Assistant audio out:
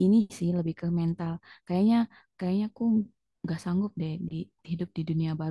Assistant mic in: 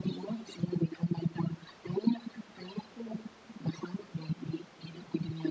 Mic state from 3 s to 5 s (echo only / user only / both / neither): echo only